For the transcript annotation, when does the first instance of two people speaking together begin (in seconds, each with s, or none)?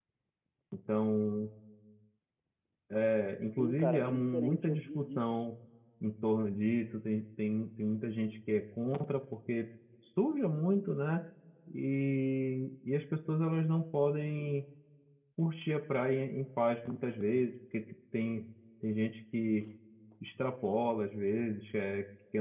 3.6 s